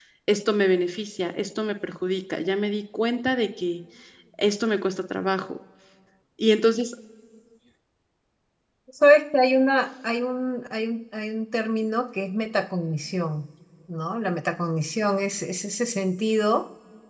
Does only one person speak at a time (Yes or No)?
Yes